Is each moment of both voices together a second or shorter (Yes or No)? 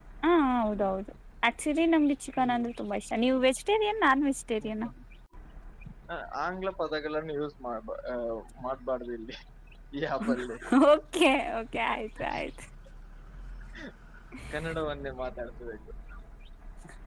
Yes